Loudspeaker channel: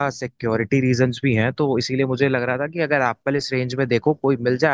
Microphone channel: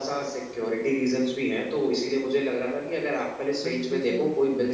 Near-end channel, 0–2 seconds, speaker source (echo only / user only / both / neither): echo only